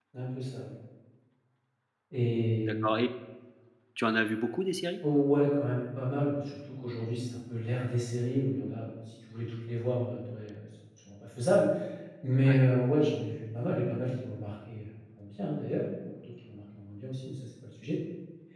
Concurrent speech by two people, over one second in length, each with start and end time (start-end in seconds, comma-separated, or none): none